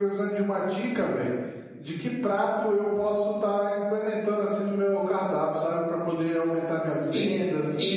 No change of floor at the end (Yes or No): No